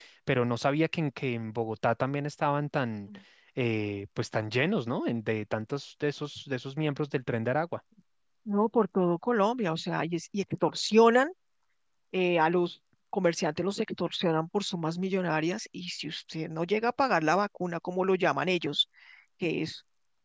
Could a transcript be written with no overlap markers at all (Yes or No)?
Yes